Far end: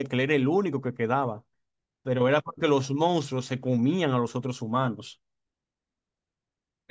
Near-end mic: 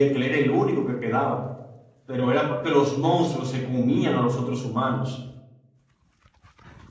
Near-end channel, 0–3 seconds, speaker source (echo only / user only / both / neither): echo only